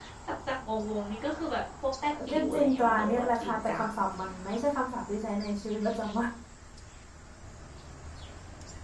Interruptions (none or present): present